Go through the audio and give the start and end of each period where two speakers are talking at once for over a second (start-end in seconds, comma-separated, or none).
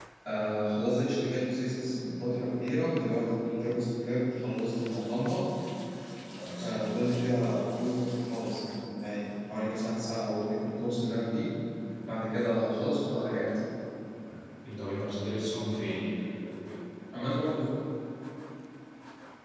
none